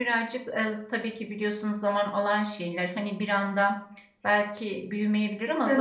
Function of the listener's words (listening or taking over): listening